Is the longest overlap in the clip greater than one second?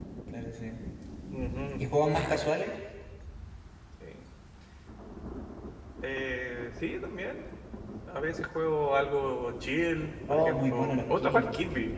Yes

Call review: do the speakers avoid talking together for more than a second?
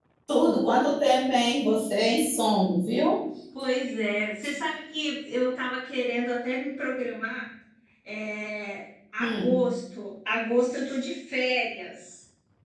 Yes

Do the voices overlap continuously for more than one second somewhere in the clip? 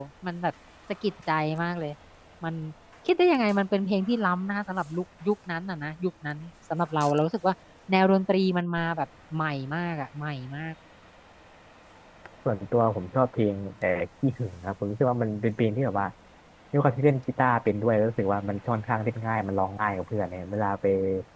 No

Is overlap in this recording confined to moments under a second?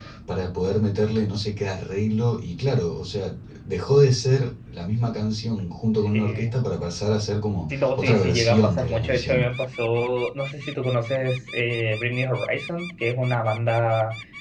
No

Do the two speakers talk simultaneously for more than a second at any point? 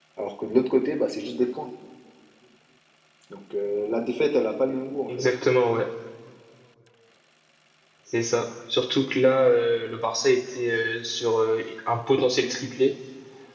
No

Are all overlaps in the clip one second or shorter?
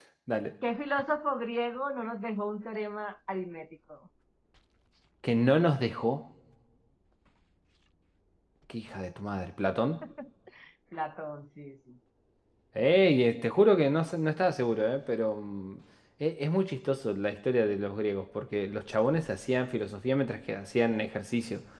Yes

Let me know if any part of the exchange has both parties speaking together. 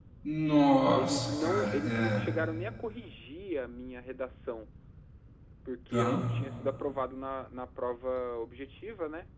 Yes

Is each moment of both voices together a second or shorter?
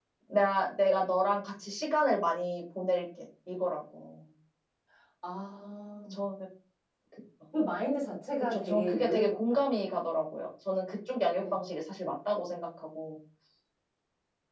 No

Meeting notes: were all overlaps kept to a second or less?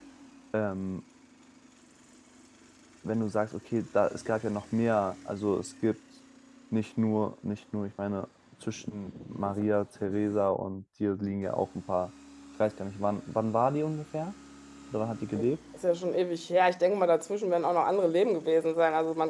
Yes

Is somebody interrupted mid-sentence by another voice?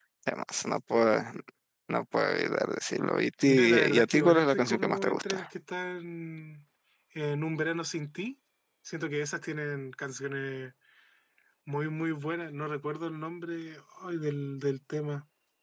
Yes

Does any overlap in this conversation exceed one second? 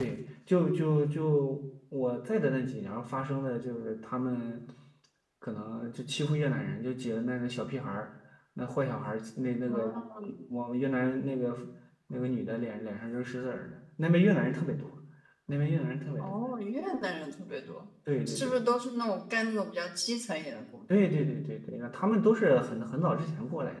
No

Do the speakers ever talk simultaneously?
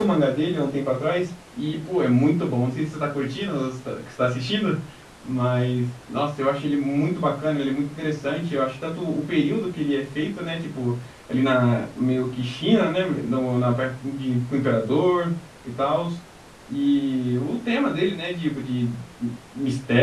No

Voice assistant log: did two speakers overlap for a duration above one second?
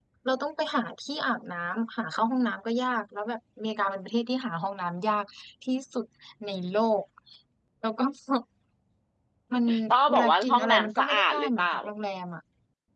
Yes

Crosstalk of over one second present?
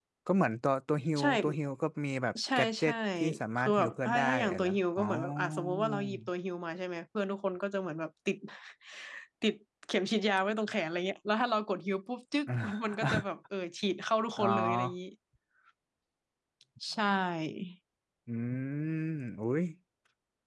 Yes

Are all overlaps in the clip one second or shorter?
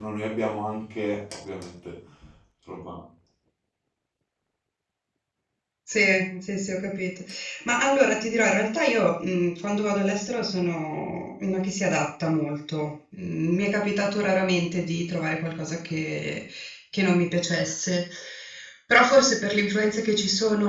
Yes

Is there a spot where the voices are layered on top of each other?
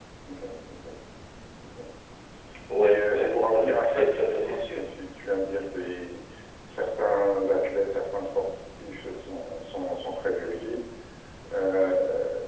Yes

